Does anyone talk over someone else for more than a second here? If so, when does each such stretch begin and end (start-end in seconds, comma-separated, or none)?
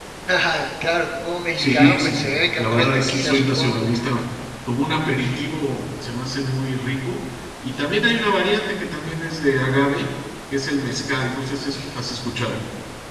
1.5-3.9